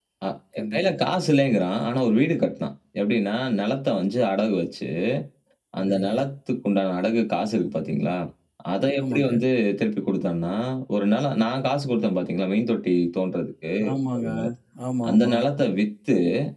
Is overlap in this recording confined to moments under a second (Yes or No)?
Yes